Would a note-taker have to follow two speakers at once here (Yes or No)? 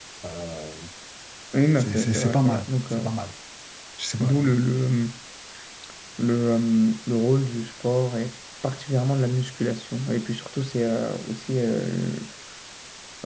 Yes